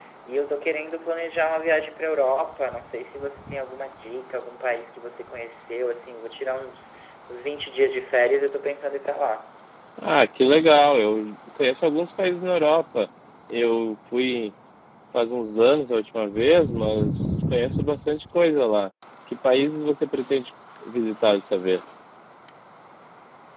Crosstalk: none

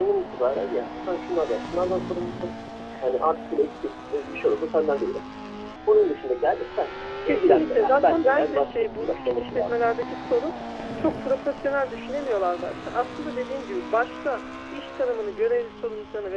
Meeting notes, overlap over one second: present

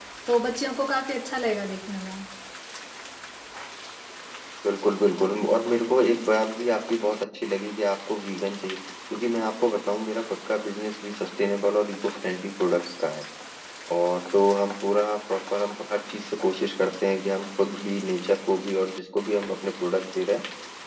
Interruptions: none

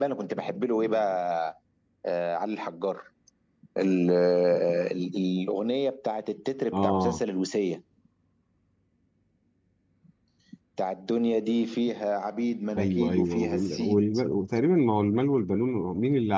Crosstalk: present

